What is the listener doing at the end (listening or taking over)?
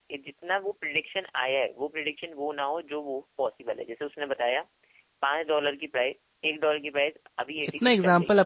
taking over